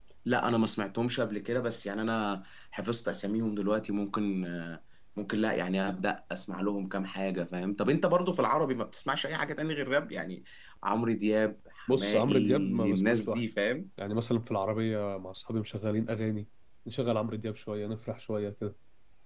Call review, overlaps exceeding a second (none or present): present